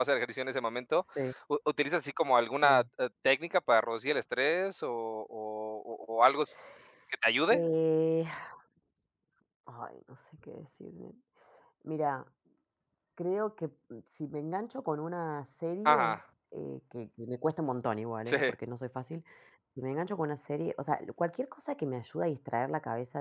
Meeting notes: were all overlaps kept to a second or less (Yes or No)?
Yes